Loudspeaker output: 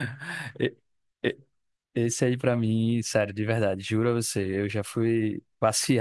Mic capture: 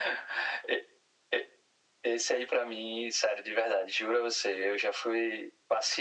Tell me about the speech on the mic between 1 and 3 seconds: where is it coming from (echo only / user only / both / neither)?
echo only